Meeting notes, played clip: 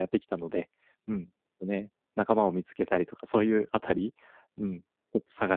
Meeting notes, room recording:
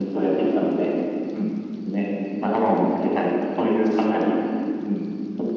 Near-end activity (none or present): none